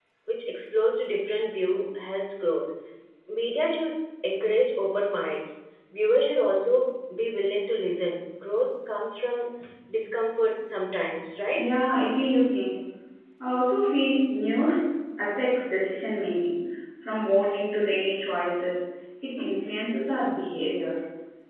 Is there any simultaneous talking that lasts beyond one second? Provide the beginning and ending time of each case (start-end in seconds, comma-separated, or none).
none